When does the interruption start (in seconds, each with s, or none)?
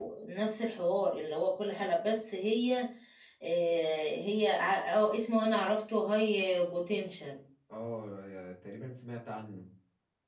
none